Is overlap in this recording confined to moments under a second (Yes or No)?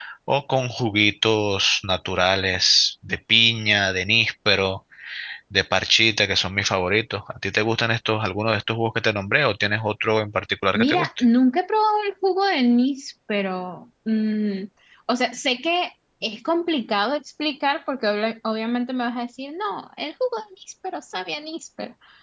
Yes